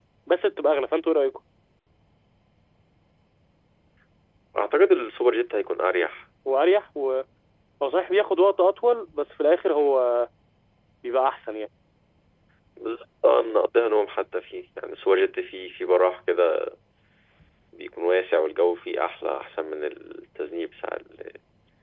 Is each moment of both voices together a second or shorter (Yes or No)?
Yes